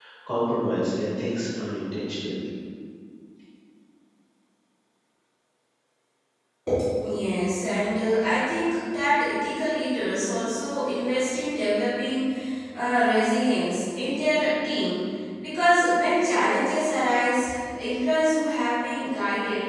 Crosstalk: none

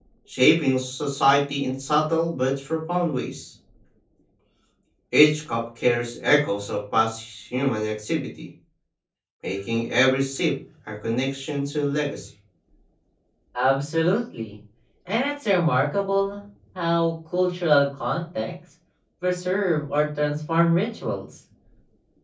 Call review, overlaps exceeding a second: none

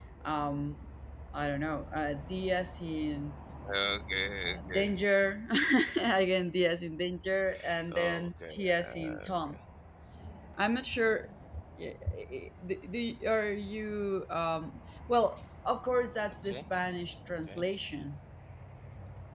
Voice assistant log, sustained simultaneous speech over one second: present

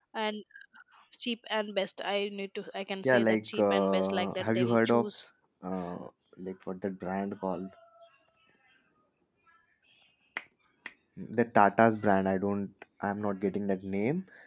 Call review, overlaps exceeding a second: present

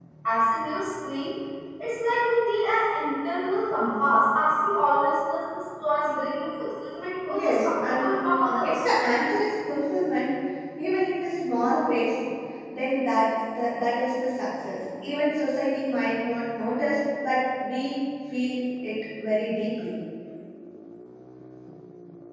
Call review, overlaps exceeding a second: present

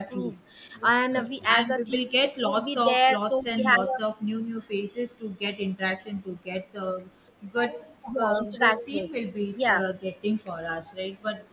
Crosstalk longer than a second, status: present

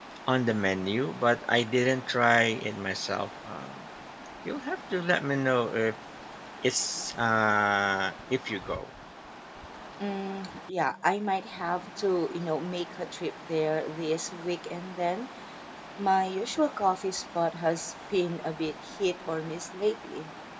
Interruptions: none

